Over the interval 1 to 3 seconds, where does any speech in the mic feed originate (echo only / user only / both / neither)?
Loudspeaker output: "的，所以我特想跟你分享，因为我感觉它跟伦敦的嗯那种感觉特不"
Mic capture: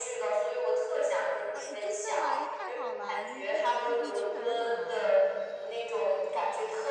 both